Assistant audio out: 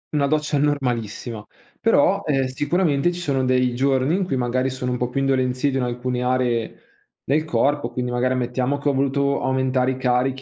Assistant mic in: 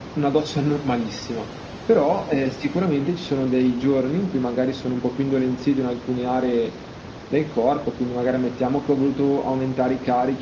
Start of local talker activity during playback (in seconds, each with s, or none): none